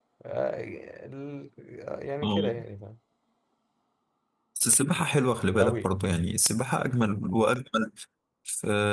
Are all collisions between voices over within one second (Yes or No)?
Yes